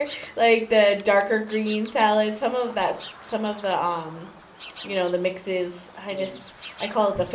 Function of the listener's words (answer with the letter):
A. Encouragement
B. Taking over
A